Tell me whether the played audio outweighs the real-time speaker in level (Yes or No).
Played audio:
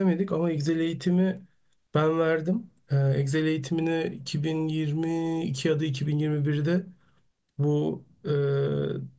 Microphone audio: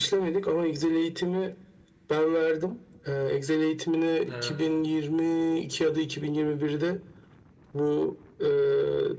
Yes